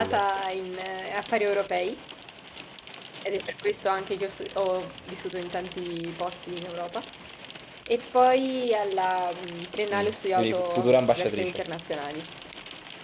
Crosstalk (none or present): present